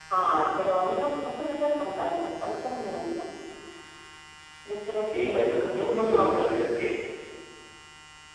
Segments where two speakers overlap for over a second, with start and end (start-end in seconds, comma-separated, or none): 5.2-6.5